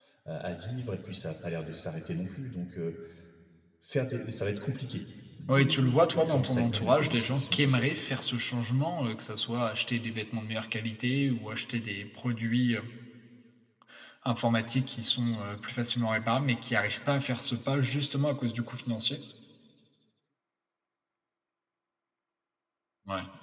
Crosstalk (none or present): present